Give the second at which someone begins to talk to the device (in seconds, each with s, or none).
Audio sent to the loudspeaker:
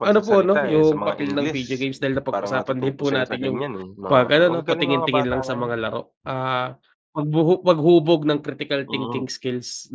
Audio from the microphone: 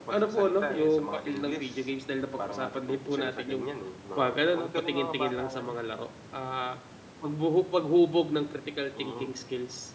none